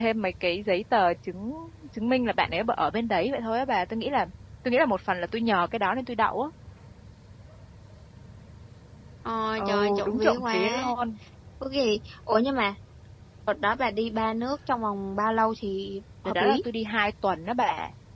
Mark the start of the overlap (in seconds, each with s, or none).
9.6 s